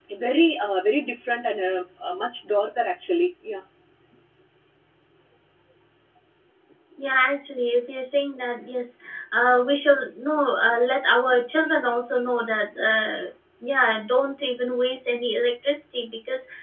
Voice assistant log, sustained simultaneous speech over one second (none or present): none